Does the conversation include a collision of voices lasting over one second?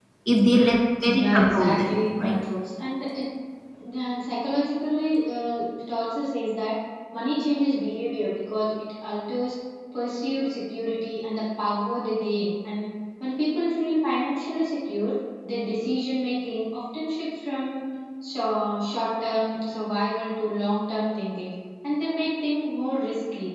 Yes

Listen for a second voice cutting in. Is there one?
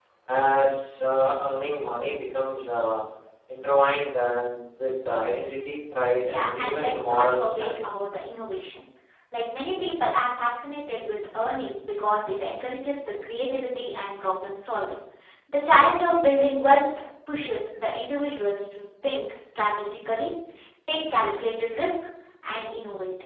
Yes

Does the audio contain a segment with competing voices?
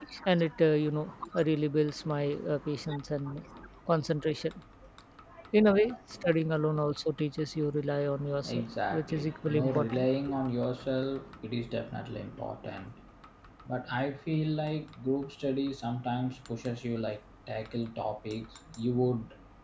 Yes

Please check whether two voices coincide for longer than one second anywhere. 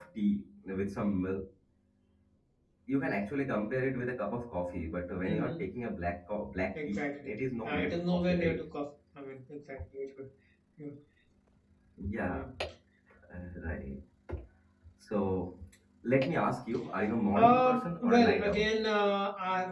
Yes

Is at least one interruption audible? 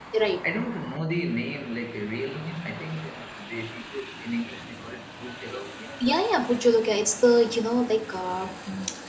No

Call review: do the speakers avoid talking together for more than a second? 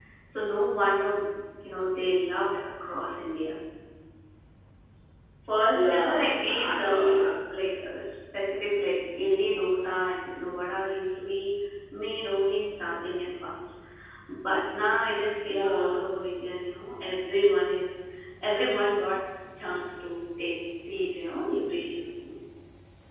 No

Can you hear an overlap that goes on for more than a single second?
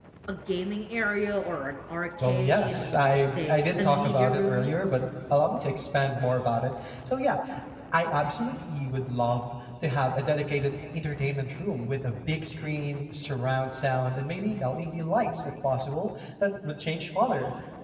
Yes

